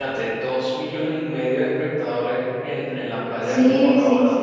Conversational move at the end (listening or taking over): taking over